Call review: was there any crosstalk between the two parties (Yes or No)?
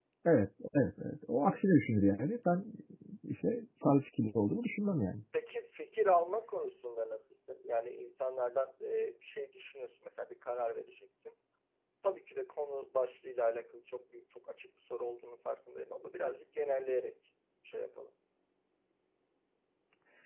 No